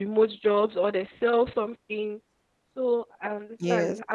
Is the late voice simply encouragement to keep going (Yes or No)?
Yes